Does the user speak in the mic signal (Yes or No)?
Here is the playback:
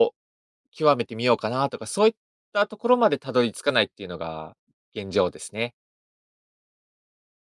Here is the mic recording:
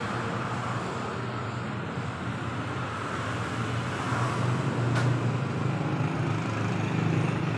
No